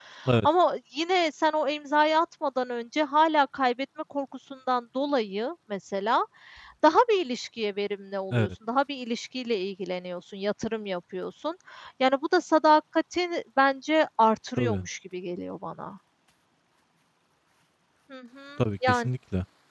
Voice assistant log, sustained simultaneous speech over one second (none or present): none